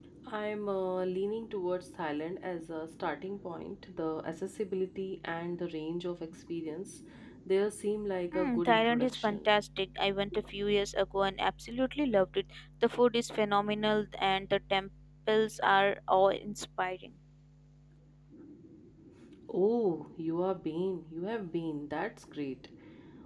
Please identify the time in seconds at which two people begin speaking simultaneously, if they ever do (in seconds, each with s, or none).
8.3 s